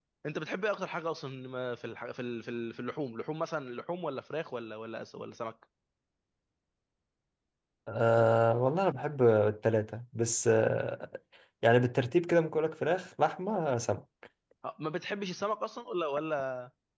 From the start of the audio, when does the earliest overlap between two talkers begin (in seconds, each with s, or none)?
none